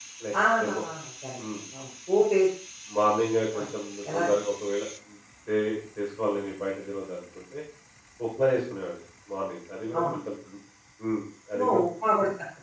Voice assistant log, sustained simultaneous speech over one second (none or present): none